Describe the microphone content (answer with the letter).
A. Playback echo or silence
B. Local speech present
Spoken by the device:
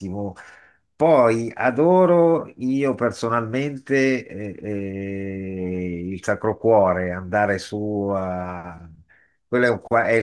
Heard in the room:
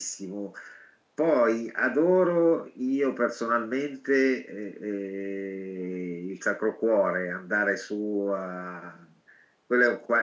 A